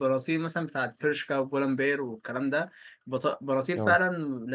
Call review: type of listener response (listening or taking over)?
listening